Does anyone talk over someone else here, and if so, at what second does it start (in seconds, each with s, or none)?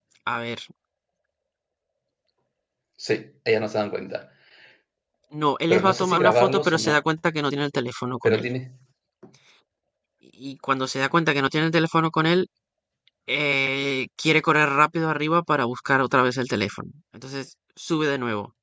5.7 s